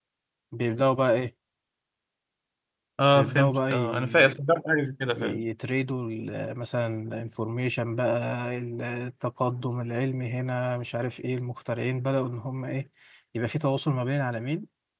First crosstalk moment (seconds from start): 3 s

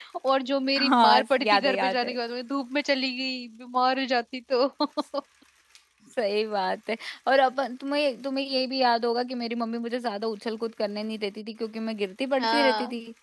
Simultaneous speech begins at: 1 s

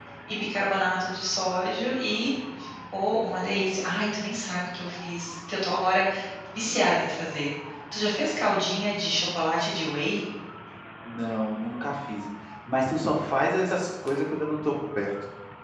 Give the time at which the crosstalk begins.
none

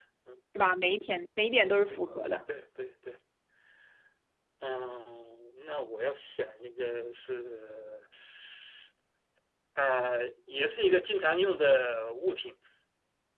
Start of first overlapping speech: none

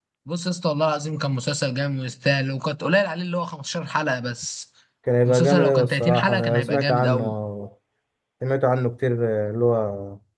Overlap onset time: 5 s

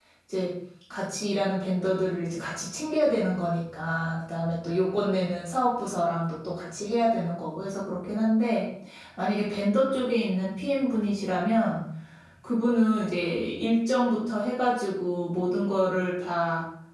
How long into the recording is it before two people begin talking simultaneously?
none

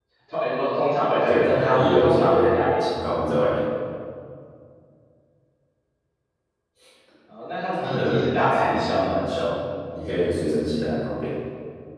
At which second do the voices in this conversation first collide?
1 s

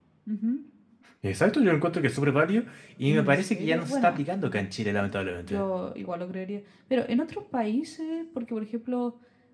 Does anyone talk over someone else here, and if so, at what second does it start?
3 s

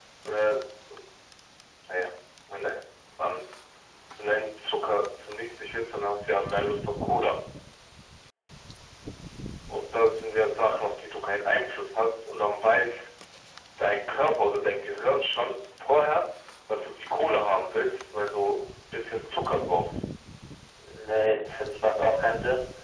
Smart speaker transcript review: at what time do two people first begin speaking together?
none

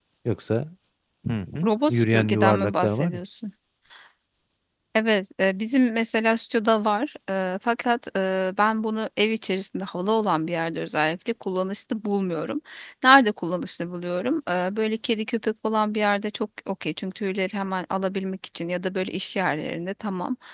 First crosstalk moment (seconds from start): 2 s

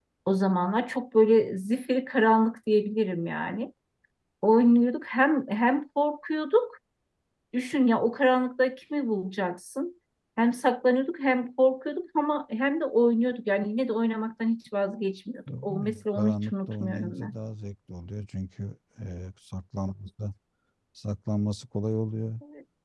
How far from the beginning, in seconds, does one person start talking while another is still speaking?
15 s

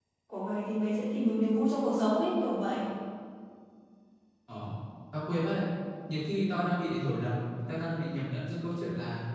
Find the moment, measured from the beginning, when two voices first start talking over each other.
none

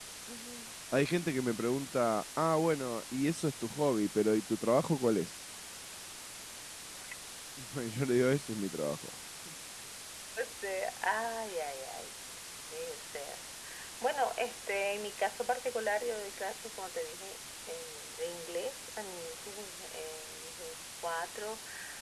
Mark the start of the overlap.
none

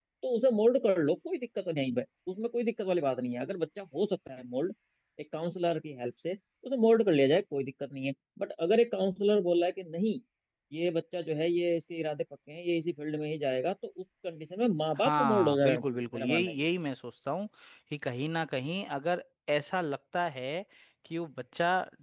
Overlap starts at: 15 s

